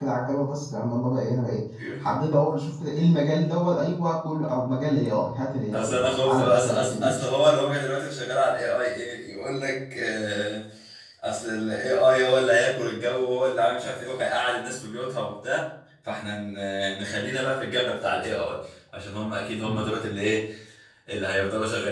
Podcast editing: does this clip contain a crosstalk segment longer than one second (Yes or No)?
Yes